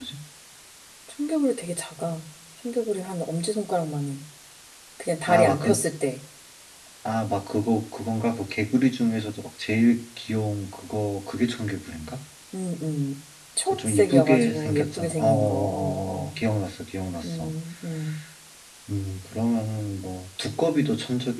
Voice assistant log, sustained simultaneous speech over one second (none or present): present